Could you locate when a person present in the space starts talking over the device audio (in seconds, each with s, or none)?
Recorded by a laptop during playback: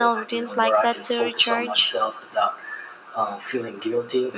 none